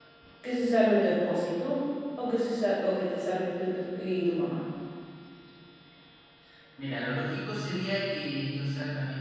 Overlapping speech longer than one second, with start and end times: none

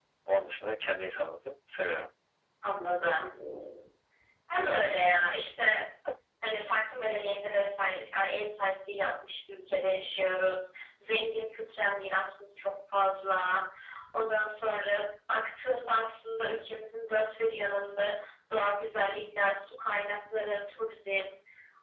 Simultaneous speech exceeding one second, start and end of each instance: none

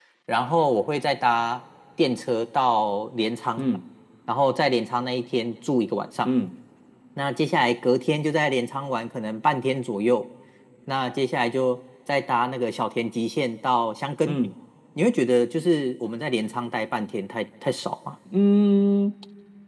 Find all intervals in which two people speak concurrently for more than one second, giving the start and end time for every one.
none

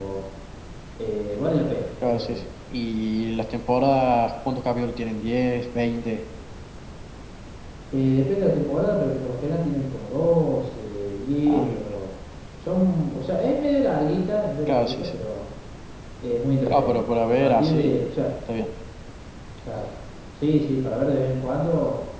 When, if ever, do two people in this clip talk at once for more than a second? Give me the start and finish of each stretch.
16.7-17.9

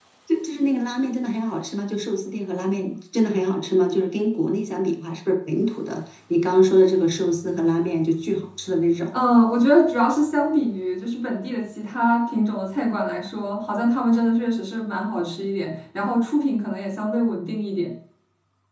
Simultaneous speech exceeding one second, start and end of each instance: none

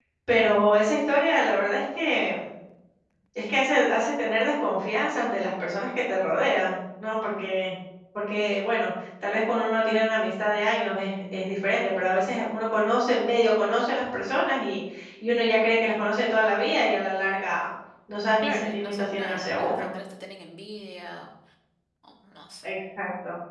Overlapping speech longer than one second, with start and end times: 18.4-19.9

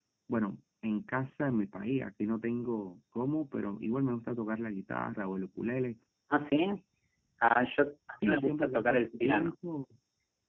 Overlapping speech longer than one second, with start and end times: 8.2-9.5

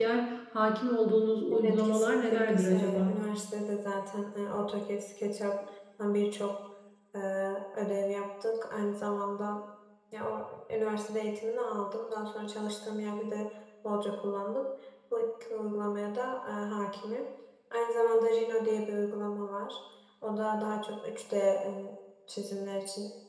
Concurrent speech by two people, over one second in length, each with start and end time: 1.6-3.1

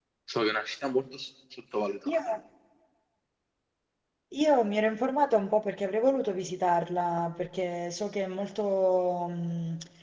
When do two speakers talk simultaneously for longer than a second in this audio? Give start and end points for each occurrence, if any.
none

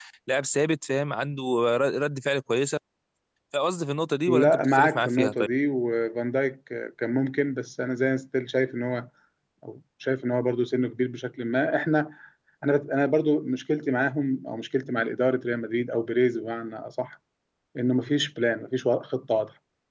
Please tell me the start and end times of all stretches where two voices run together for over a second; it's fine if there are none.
4.3-5.5

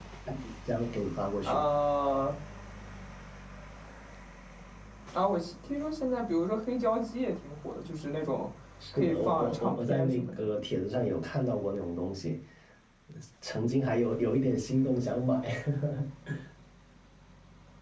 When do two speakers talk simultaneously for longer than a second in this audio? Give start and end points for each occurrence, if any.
8.9-10.5

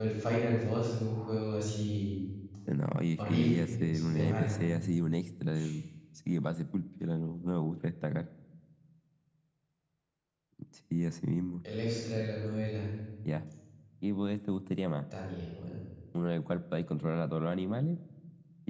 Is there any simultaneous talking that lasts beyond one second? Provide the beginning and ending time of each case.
3.2-4.9

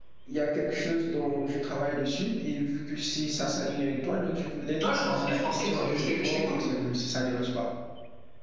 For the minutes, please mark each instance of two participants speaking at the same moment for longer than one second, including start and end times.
4.8-6.7

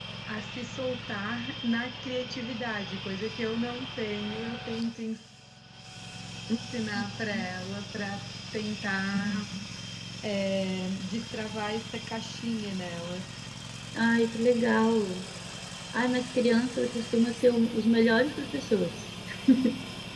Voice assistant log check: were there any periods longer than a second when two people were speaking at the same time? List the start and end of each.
none

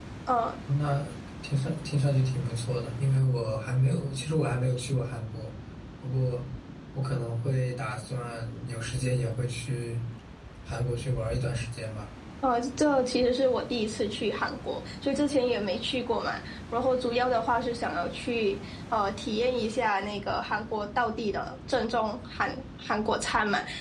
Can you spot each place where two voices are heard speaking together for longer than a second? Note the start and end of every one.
none

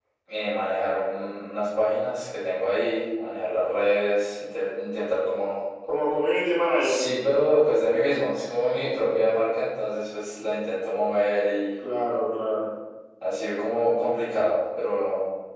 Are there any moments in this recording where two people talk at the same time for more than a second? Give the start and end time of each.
none

